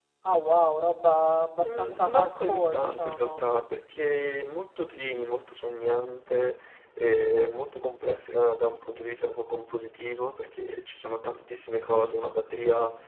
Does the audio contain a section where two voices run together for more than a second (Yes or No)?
Yes